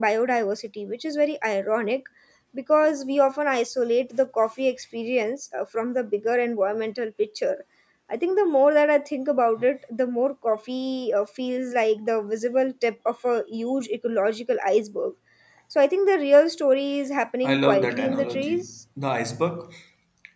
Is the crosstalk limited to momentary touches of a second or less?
No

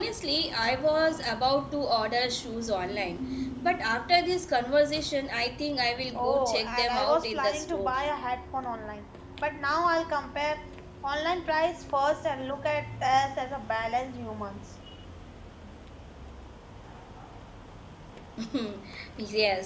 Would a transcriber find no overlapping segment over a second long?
No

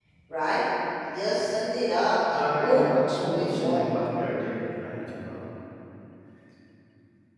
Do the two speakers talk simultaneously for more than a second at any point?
Yes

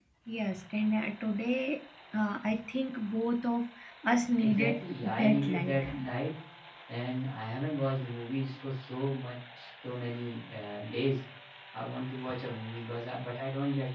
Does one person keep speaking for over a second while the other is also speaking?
Yes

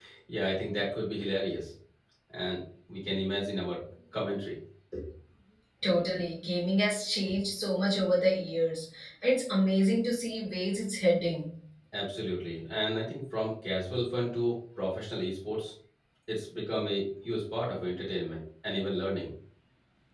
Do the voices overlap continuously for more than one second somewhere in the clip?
No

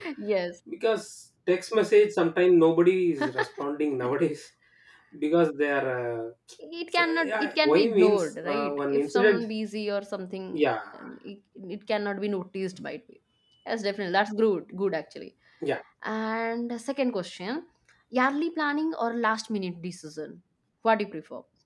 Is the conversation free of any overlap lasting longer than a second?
No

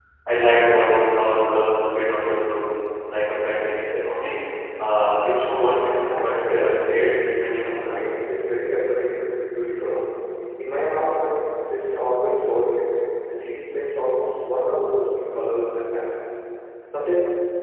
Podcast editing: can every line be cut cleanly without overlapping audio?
No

